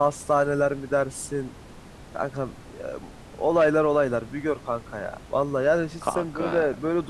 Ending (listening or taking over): listening